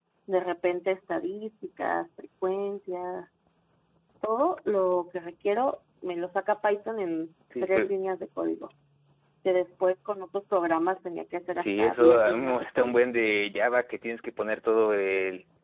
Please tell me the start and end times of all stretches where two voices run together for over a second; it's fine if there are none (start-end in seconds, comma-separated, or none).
11.6-13.0